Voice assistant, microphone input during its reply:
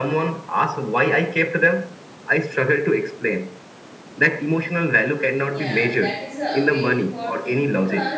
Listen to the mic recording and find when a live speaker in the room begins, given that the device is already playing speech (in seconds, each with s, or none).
5.4 s